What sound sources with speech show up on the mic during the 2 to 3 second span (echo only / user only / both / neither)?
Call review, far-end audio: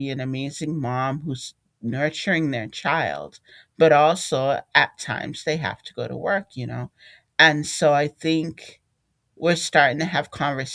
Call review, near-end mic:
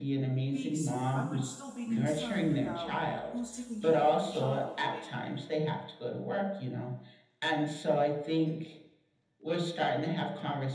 both